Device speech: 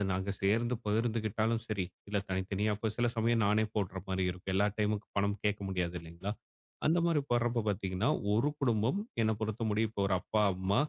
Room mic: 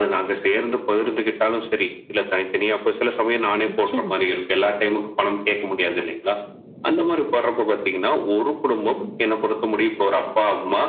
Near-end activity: present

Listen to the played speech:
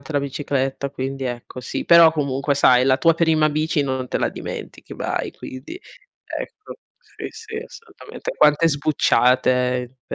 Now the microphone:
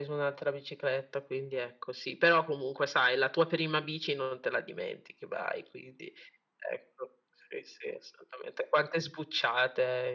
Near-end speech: none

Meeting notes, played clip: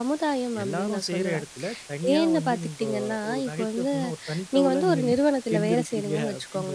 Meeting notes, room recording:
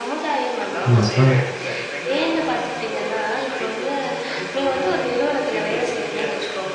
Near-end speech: present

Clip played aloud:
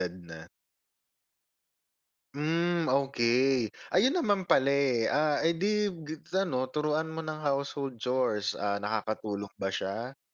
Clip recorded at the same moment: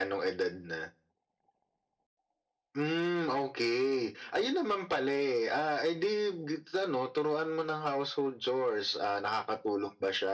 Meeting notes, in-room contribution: none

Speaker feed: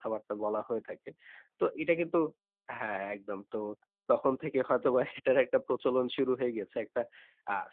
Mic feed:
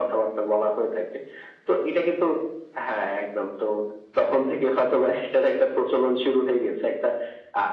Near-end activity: none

